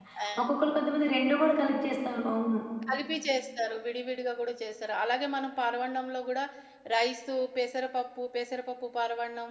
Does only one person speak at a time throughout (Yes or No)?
Yes